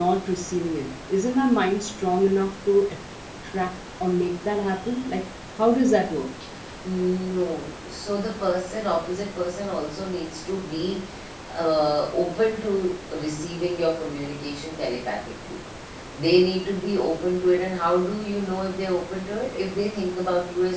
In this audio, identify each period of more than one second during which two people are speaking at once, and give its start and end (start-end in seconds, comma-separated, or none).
none